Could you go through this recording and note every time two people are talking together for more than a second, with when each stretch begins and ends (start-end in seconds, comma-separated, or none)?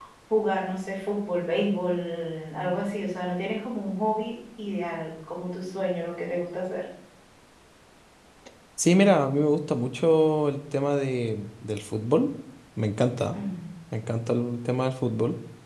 none